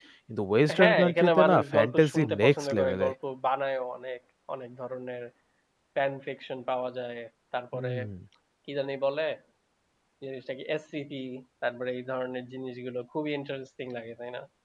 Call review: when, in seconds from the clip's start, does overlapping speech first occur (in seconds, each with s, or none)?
0.8 s